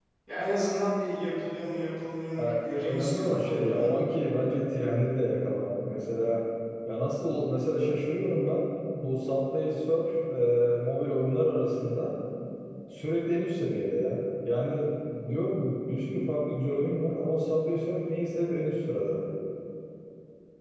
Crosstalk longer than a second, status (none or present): present